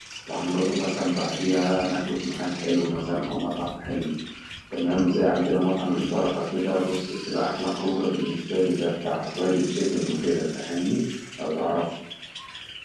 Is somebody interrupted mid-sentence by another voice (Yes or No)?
No